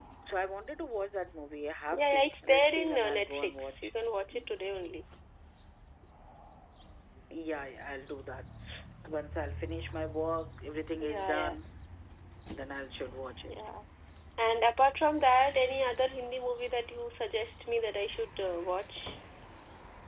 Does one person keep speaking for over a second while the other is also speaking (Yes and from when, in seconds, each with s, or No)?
Yes, from 1.9 s